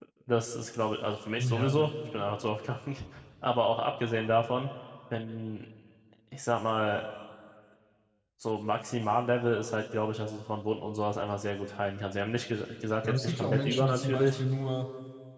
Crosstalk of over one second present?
Yes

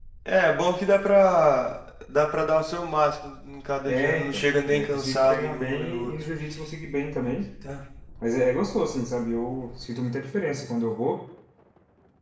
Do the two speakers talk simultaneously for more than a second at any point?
Yes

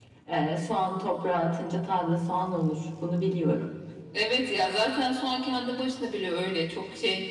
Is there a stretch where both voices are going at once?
No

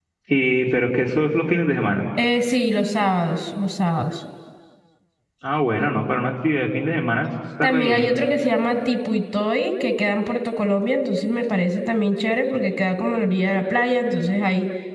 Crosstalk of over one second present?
No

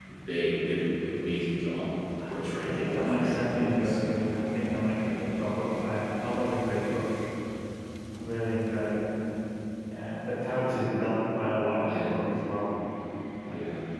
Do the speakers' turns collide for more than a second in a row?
Yes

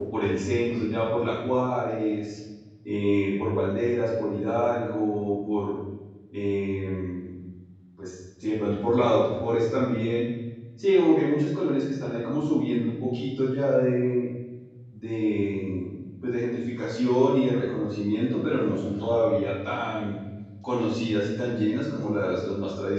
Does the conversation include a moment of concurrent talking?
No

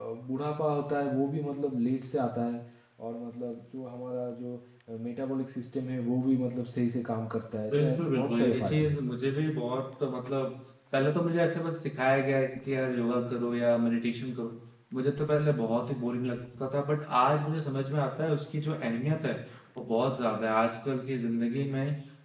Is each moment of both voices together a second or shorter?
No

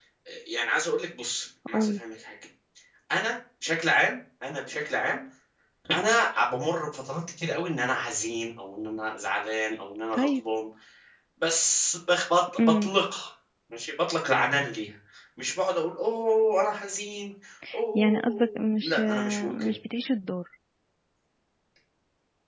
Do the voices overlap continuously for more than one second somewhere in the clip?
Yes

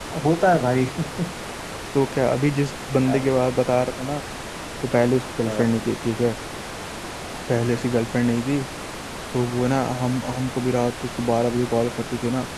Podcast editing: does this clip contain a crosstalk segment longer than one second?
No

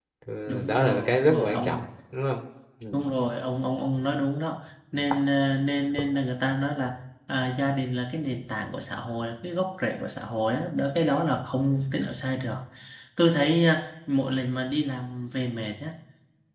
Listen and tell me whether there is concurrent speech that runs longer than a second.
Yes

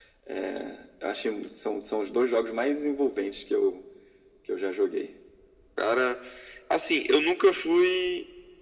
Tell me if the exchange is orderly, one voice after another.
Yes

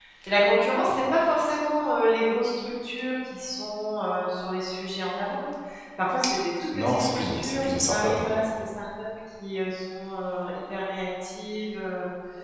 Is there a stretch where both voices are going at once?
Yes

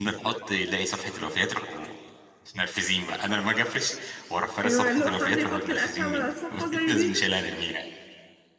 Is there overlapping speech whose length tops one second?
Yes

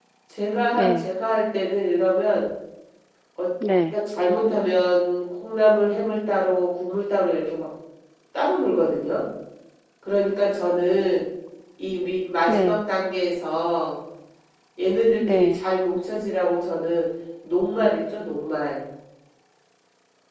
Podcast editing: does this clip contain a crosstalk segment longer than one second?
No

